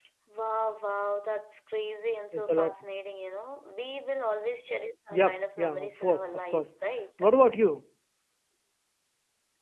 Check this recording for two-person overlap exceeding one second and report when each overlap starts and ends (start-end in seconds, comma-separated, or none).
5.1-6.7